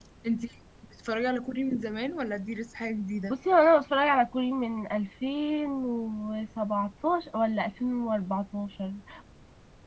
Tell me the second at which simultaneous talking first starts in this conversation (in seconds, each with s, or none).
none